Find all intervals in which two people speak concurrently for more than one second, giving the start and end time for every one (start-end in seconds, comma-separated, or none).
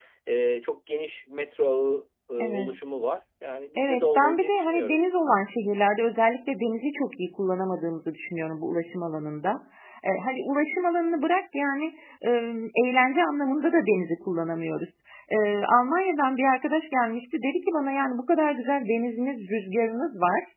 3.8-5.0